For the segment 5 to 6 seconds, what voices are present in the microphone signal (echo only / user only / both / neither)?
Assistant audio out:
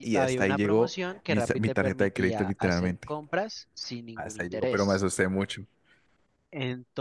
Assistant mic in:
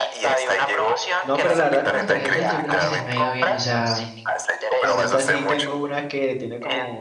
both